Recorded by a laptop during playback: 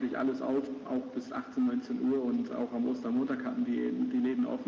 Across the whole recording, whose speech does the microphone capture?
echo only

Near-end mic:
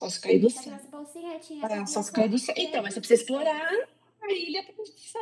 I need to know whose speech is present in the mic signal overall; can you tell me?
both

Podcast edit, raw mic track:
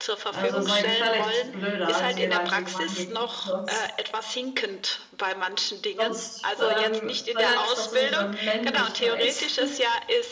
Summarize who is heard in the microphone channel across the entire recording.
both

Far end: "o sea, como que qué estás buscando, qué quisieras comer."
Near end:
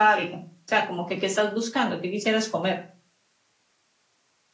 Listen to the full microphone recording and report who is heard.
echo only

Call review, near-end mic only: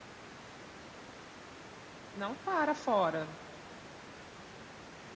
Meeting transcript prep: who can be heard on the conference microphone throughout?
user only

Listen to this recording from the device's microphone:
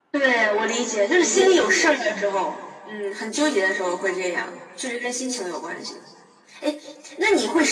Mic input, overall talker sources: both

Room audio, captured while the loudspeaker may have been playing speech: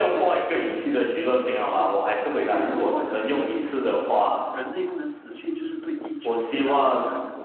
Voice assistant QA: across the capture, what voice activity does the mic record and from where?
both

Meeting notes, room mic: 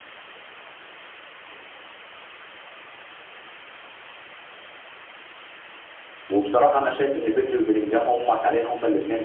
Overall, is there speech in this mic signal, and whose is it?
user only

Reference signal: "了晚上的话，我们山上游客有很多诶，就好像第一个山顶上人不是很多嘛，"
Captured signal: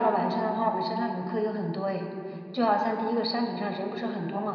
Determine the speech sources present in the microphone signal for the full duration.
echo only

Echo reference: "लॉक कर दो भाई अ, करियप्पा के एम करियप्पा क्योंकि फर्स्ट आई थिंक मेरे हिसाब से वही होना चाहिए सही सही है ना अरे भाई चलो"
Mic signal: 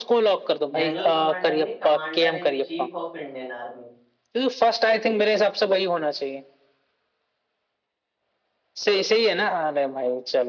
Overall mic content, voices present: both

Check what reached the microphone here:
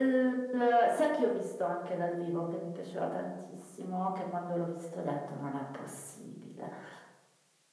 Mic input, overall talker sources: echo only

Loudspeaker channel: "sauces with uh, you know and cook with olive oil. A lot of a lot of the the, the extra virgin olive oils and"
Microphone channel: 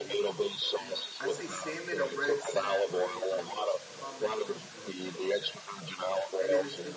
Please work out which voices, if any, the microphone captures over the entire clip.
both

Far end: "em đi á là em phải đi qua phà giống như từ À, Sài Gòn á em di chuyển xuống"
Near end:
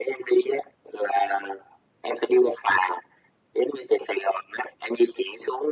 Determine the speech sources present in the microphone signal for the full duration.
echo only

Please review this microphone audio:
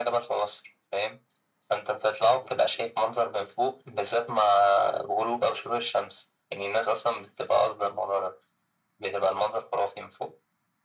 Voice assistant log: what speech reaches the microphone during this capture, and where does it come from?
echo only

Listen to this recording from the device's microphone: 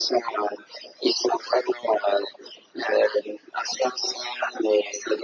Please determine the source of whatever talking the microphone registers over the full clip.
echo only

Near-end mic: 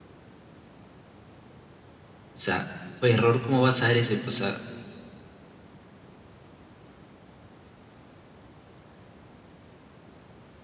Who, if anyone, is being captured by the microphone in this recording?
user only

